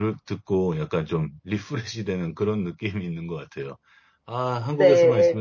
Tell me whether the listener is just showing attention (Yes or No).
Yes